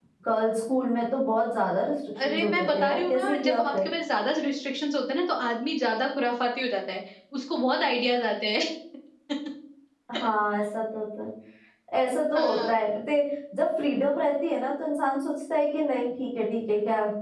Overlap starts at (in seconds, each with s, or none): 2.2 s